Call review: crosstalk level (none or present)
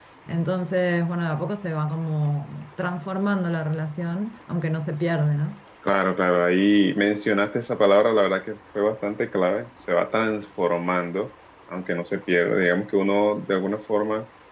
none